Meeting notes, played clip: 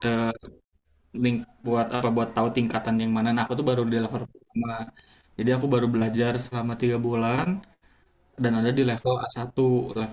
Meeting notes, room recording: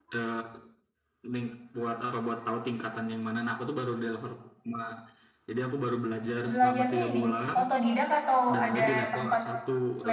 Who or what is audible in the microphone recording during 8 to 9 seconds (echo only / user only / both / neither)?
both